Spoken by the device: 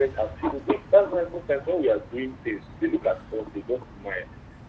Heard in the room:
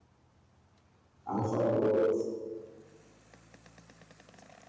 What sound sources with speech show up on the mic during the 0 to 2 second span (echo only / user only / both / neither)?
user only